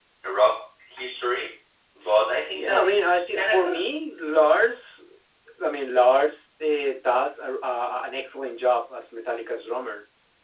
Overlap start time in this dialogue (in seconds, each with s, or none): 2.5 s